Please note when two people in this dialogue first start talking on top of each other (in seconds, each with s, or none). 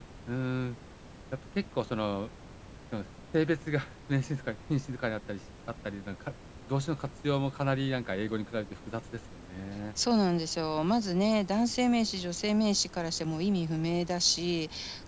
none